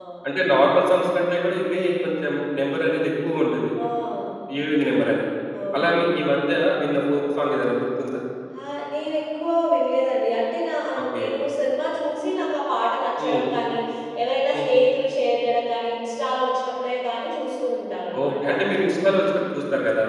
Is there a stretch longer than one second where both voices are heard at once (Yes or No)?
No